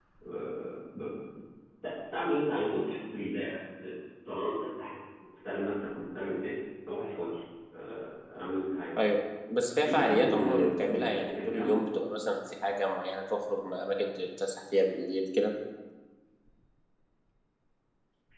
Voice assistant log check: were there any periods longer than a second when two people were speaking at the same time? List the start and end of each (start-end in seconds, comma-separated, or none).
9.8-11.7